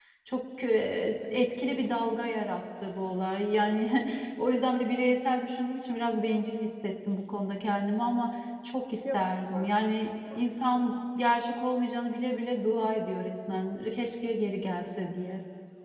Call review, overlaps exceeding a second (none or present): present